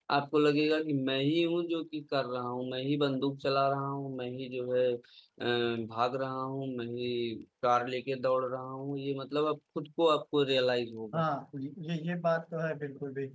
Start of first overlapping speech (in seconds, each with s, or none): none